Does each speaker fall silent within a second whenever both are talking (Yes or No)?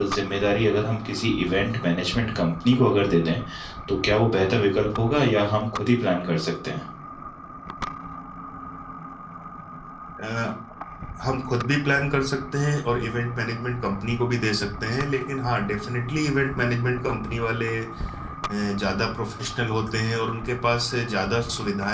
Yes